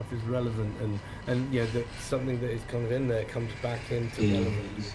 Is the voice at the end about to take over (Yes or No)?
Yes